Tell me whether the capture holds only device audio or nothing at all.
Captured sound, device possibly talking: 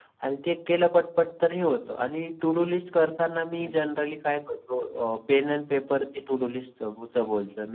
No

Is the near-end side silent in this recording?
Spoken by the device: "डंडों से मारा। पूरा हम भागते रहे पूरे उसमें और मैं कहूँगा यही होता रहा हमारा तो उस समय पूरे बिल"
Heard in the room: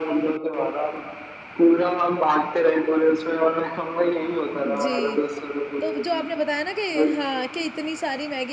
No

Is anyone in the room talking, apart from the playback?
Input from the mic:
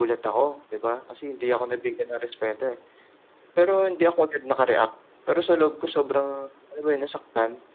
No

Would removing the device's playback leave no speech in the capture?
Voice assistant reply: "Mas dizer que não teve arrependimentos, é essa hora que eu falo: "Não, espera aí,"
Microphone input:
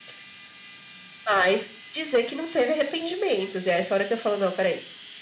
Yes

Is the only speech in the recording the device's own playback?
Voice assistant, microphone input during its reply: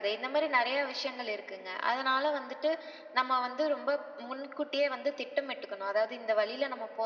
Yes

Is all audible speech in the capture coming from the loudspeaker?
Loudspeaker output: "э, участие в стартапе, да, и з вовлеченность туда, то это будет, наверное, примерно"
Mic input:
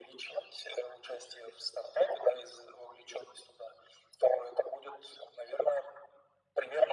Yes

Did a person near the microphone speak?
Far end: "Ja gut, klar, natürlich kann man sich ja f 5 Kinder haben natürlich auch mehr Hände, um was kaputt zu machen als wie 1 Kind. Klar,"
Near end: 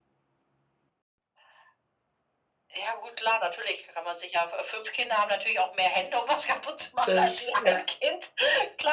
Yes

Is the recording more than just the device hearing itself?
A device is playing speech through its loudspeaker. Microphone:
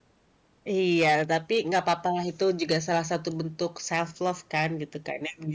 Yes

